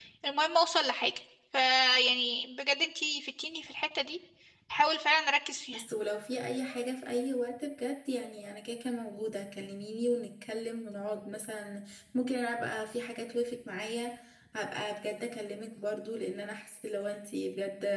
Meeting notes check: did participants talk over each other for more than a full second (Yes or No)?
No